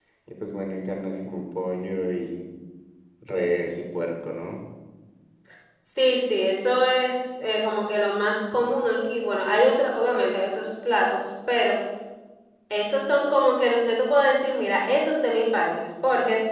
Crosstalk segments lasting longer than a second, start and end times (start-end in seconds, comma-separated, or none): none